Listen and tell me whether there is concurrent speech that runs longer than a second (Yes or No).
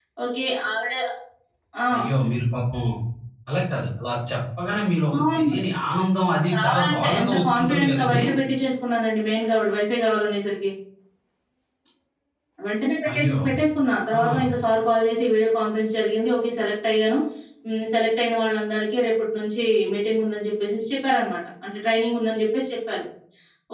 Yes